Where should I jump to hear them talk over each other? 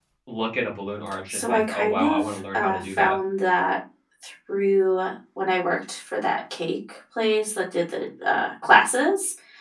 1.3 s

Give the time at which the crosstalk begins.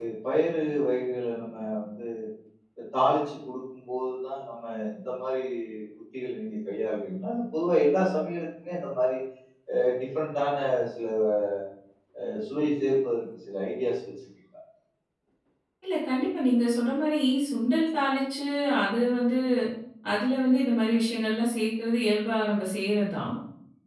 none

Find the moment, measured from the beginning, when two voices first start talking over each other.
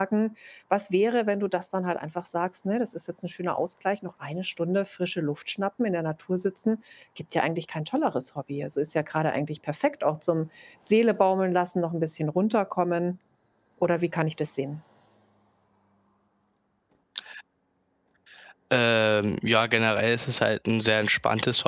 none

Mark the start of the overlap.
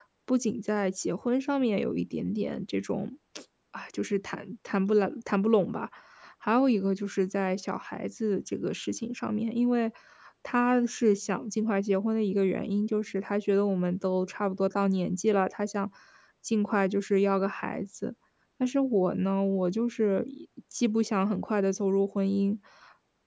none

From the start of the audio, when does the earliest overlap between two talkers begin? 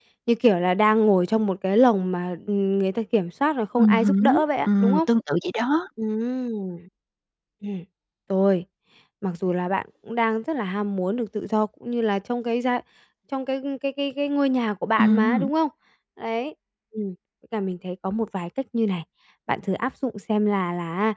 3.8 s

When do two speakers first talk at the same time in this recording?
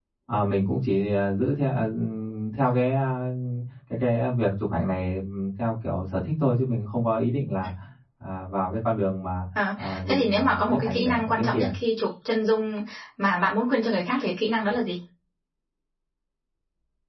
9.8 s

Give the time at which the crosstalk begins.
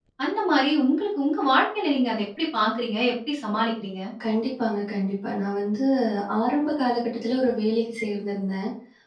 none

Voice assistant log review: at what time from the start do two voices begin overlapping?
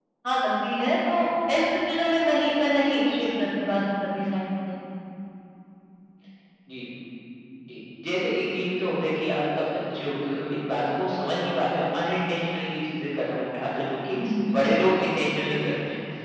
none

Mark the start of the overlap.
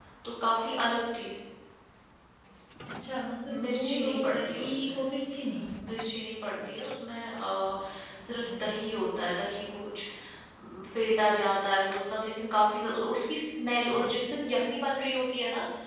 3.5 s

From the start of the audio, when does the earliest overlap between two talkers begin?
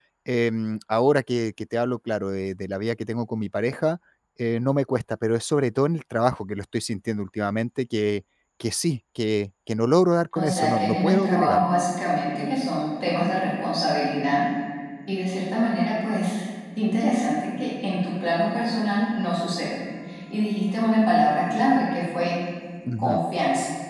10.4 s

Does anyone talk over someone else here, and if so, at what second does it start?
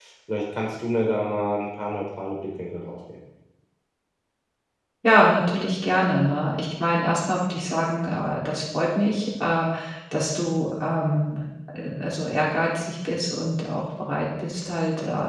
none

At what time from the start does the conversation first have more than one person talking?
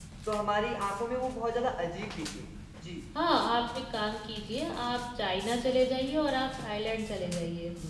none

